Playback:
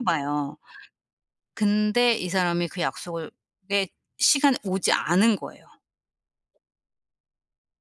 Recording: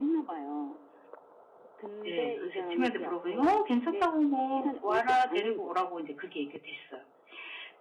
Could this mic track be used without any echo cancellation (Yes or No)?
No